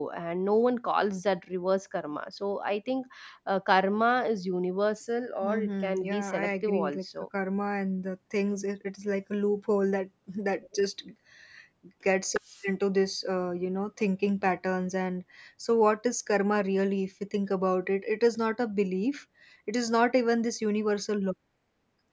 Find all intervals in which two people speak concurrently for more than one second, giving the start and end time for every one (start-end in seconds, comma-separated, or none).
5.4-7.0